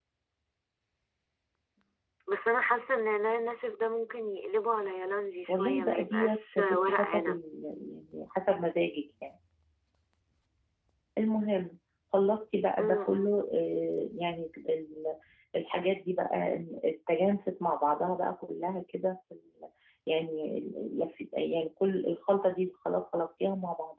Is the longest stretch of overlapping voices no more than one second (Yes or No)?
No